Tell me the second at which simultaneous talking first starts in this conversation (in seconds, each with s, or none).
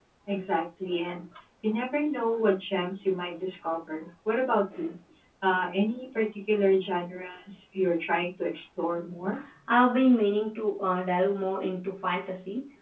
none